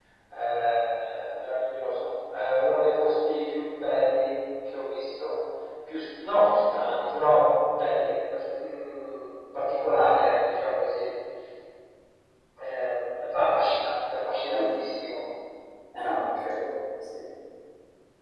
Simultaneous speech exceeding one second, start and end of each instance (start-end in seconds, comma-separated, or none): none